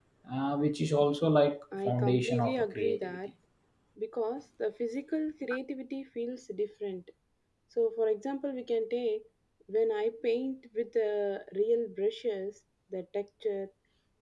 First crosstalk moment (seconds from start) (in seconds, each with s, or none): 1.7 s